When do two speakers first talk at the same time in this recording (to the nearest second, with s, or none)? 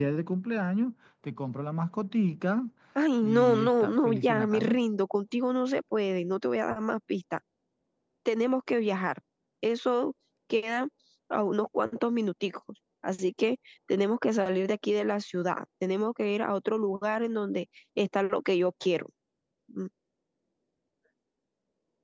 3 s